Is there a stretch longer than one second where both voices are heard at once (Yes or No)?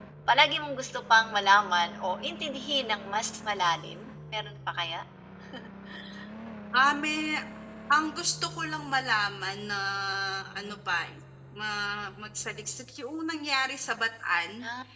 No